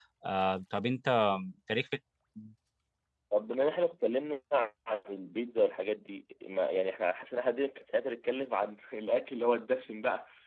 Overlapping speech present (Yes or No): No